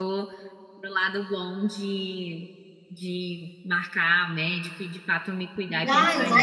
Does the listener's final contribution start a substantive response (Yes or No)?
Yes